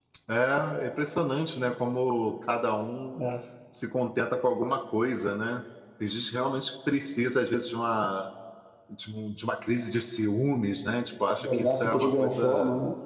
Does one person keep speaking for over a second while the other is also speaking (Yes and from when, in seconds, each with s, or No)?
Yes, from 11.4 s